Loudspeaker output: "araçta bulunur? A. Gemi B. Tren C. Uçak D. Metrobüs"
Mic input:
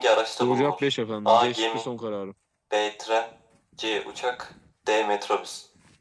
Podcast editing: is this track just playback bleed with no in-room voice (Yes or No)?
No